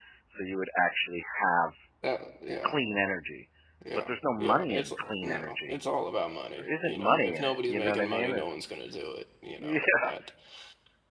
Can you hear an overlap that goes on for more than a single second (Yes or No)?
Yes